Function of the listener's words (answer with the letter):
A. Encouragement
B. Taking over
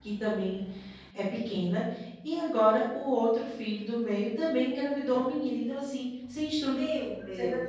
B